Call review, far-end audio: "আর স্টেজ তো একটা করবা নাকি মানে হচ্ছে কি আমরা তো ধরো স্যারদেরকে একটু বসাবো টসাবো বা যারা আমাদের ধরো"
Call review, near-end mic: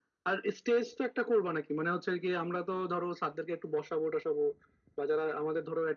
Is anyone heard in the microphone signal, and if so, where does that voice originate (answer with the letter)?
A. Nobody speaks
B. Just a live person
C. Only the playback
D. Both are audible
C